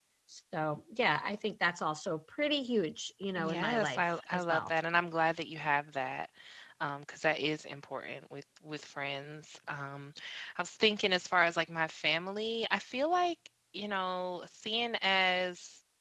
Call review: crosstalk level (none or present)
present